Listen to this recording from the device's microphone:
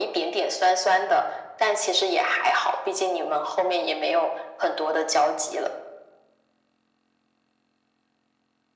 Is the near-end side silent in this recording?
Yes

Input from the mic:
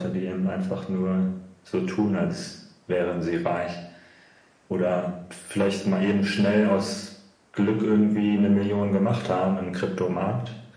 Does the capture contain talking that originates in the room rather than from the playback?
No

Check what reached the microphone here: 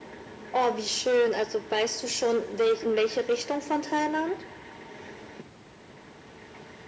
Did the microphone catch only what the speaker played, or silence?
Yes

